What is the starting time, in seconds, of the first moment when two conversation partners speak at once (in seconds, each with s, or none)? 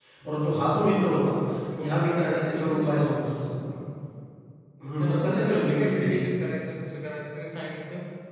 1.8 s